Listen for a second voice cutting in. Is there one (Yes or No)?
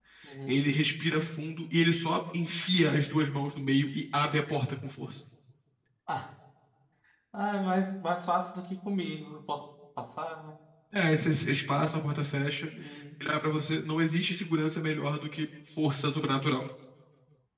No